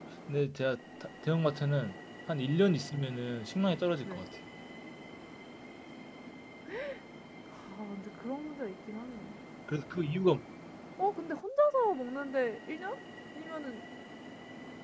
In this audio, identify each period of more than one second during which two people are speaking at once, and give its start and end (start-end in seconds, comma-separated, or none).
none